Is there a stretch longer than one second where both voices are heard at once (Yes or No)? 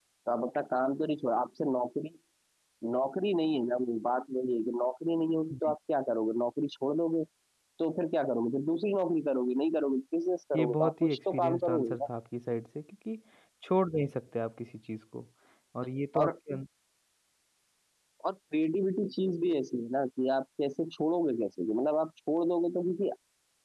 Yes